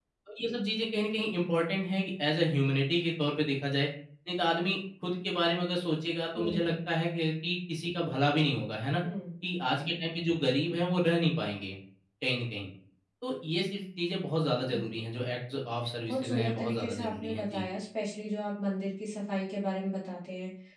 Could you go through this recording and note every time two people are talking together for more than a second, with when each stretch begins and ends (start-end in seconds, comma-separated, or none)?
16.1-17.7